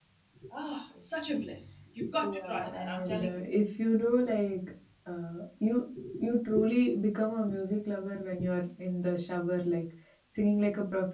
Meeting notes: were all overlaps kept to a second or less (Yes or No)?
No